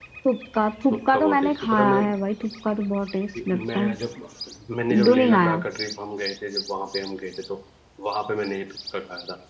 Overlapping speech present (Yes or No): Yes